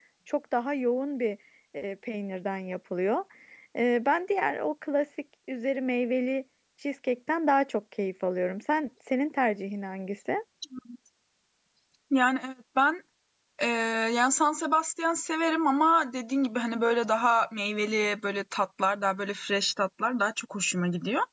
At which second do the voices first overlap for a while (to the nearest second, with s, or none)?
none